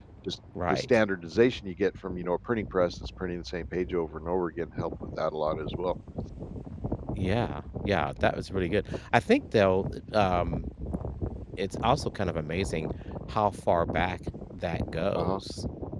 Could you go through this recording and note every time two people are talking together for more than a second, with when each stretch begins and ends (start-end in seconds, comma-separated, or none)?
none